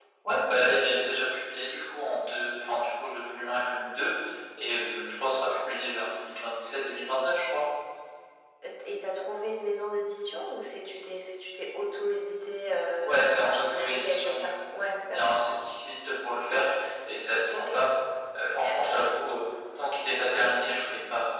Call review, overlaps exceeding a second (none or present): present